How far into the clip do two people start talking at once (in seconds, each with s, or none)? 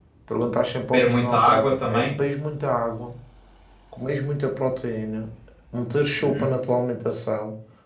0.9 s